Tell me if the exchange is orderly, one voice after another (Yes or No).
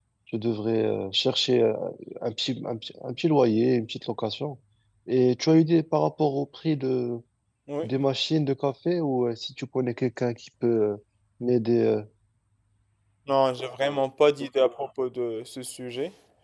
Yes